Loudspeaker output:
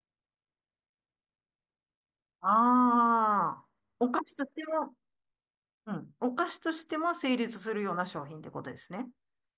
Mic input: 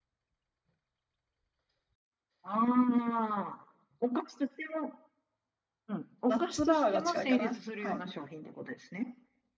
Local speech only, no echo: ナッツバーが近いかな。はい。

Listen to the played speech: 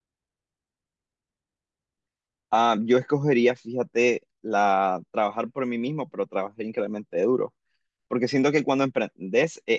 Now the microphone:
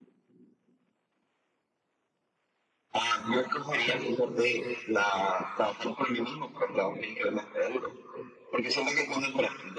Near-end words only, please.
none

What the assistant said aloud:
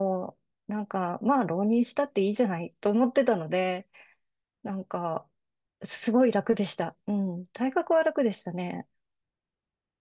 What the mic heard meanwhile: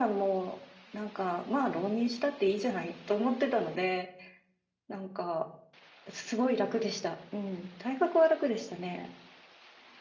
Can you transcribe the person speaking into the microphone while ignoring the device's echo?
none

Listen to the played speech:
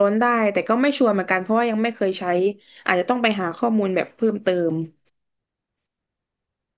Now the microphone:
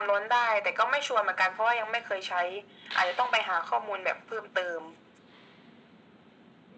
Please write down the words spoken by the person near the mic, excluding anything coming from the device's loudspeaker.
none

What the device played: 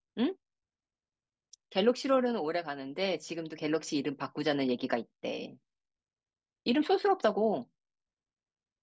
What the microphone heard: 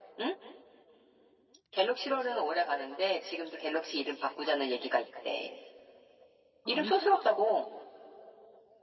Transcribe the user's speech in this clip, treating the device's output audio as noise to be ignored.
아, 안 싸.

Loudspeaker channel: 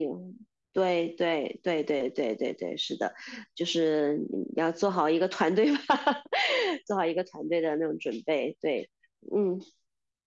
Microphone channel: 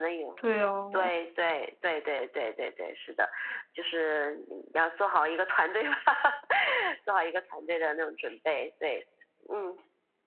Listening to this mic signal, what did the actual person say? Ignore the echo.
对哦。

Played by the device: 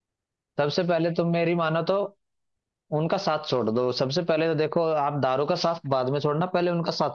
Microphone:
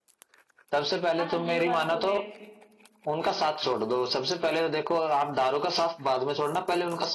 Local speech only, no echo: हाँ ये बात तो है बिल-

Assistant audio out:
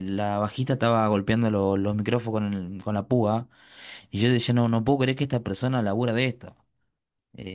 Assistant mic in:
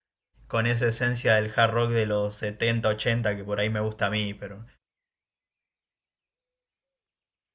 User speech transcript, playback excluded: con esa esencia del hard rock de los 70 80 que por ahí me gusta a mí, pero

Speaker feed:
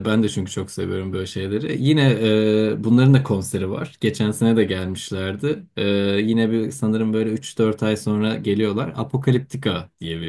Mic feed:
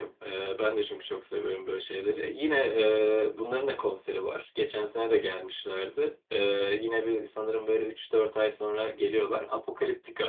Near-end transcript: none

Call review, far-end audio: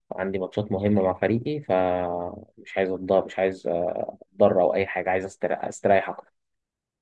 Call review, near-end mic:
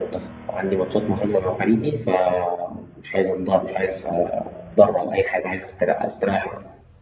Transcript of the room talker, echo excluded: none

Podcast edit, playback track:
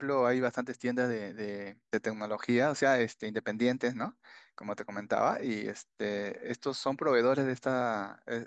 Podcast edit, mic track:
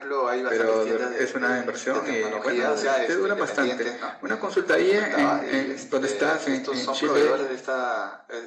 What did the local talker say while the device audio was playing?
pero de- es una inversión y bueno, le- te duran bastante. Una consulta ahí en, en donde estás, en, en Chile,

